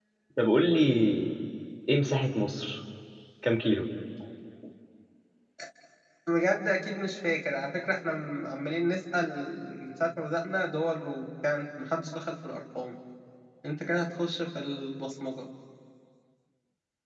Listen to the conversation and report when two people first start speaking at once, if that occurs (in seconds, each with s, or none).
none